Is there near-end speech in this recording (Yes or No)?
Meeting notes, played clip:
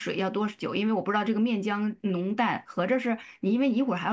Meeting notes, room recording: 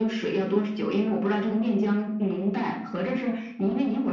No